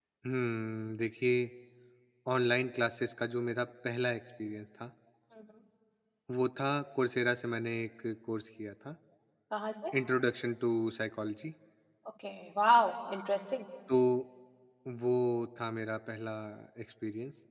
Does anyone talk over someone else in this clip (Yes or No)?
No